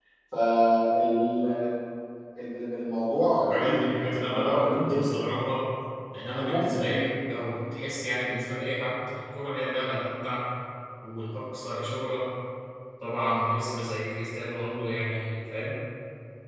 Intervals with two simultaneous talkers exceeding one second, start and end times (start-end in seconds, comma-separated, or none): 3.4-5.3